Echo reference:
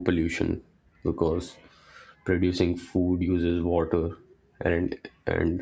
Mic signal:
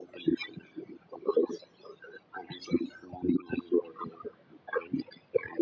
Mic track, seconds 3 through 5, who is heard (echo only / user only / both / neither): echo only